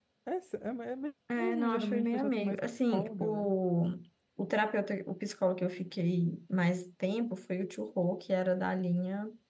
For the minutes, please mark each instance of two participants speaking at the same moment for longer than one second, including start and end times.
1.4-3.6

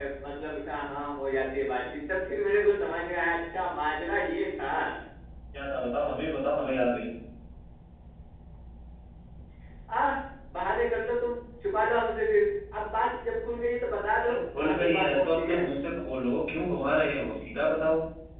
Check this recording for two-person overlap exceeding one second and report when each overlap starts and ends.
14.2-15.7

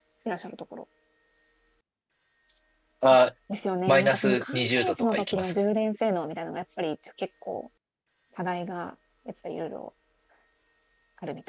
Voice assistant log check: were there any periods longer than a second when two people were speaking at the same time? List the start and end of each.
3.9-5.6

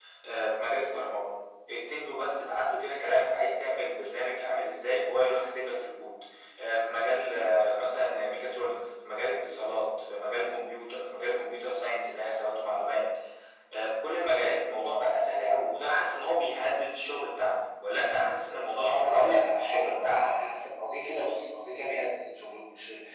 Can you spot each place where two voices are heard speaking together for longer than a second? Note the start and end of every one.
18.8-20.6

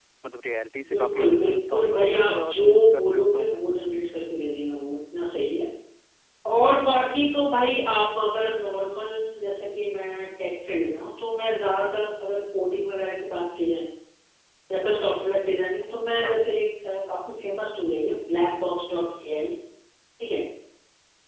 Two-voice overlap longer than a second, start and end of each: 0.9-3.5

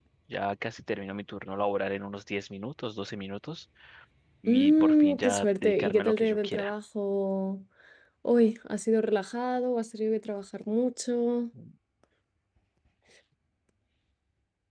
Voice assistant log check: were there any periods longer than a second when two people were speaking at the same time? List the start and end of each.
4.5-6.7

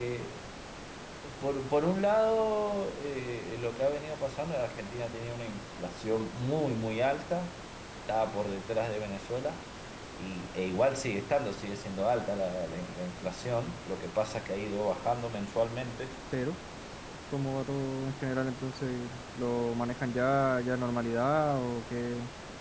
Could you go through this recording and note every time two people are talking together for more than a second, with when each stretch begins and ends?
none

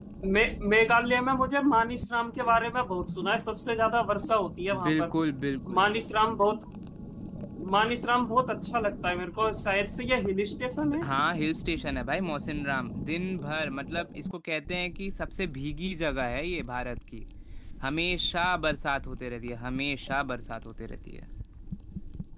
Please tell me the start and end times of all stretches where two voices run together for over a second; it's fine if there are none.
none

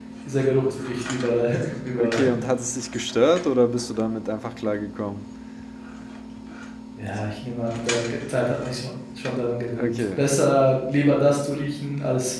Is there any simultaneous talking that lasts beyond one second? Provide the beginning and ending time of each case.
none

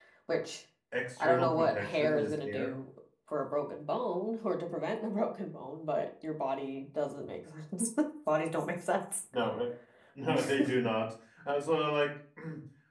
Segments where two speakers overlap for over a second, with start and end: 1.2-2.7

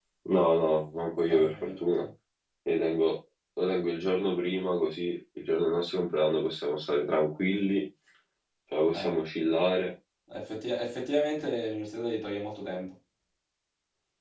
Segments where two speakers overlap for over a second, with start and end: none

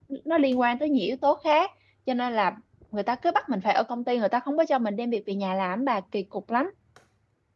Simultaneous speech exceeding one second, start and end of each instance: none

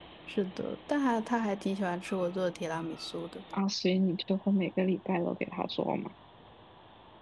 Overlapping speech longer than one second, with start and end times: none

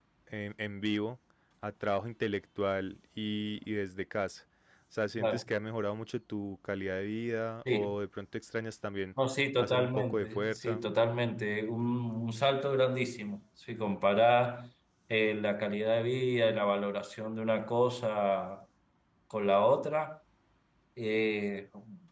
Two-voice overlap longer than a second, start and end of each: 9.6-10.8

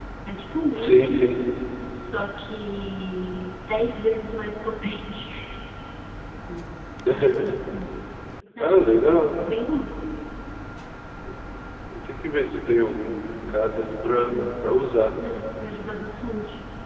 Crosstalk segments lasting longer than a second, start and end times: none

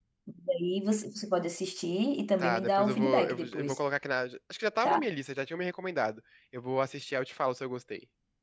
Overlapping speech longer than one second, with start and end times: 2.4-3.8

